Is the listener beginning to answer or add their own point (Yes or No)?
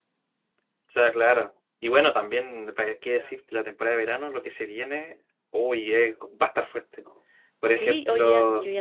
Yes